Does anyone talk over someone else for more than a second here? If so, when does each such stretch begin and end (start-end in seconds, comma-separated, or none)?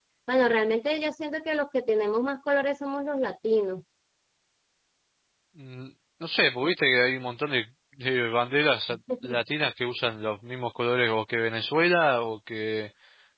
none